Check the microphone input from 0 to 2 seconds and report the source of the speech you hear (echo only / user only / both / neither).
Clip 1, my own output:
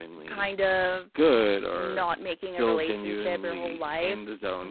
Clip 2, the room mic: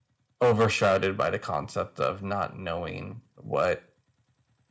user only